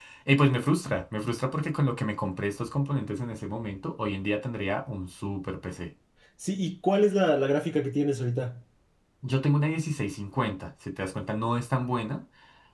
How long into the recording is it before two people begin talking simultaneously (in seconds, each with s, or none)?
none